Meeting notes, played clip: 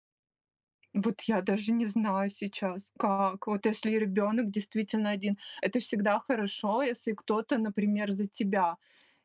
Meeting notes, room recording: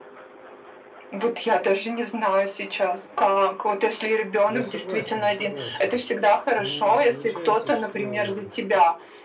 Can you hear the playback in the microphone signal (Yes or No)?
Yes